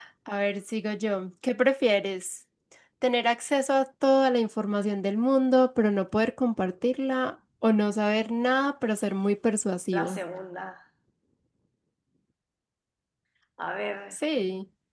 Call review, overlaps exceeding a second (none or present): none